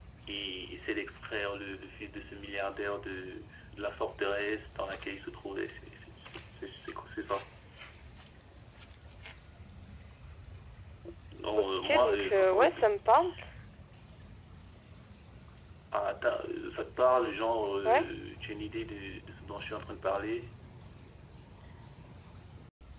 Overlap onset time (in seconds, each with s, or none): 11.6 s